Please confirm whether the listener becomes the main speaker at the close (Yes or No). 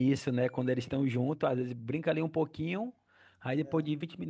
No